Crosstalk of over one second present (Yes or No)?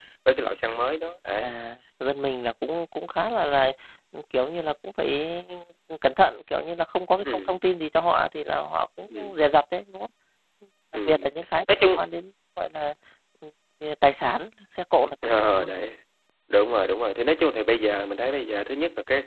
No